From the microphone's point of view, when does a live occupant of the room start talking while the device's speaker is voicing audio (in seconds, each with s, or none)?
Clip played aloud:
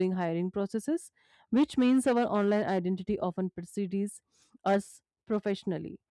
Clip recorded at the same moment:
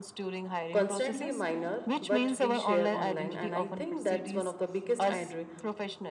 0.7 s